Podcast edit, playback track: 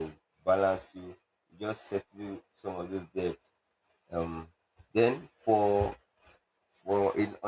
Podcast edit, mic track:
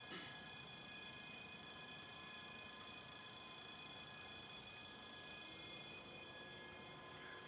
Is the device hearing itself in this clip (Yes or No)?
No